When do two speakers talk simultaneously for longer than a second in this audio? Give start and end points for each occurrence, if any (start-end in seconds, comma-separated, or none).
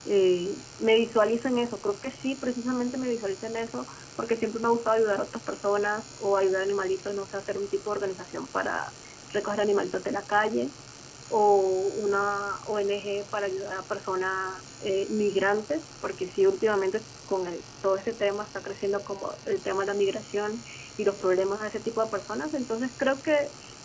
none